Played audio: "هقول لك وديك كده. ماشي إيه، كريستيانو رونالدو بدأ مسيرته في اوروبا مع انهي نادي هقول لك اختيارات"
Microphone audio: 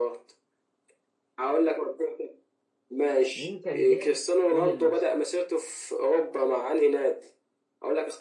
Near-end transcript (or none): مين كان جاب جون المكسب